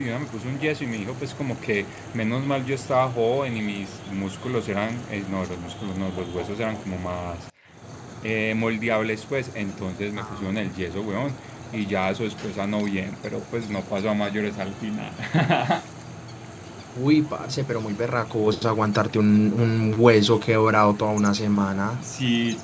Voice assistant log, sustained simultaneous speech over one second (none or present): none